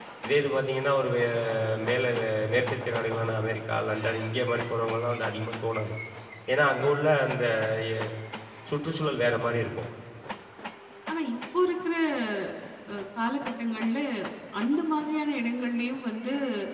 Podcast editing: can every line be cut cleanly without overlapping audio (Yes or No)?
Yes